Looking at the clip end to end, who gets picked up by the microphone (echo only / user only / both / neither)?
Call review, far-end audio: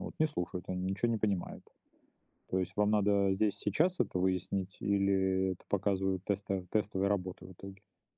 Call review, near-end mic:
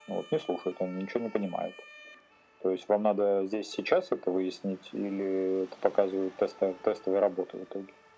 echo only